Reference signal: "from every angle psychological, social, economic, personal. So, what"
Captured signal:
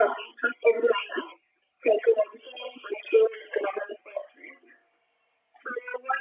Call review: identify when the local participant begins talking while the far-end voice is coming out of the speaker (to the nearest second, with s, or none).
none